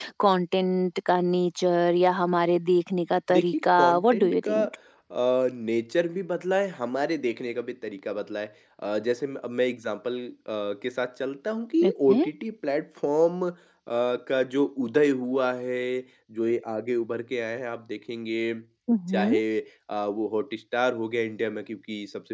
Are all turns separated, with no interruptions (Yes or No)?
No